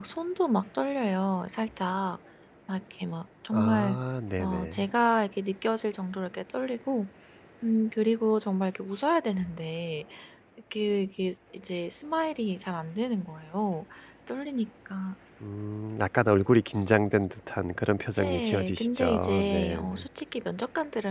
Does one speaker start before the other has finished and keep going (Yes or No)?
Yes